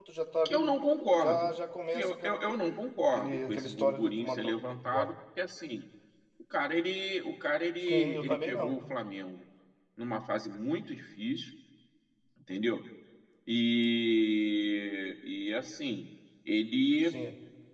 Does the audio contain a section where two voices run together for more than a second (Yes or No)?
Yes